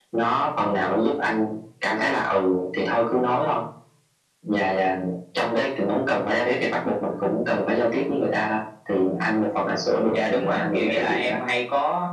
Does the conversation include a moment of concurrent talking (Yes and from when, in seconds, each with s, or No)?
Yes, from 10.1 s